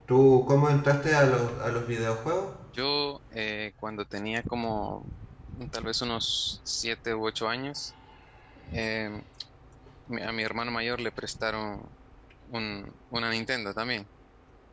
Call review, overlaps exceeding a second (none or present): none